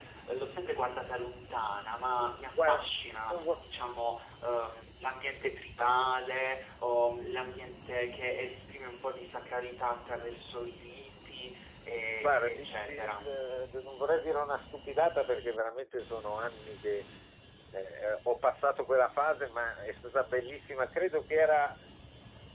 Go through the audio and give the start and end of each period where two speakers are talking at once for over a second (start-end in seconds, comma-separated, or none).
12.2-13.4